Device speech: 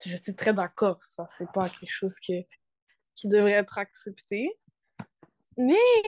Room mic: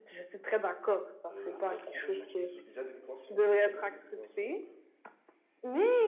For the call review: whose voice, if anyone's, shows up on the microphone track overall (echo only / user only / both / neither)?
both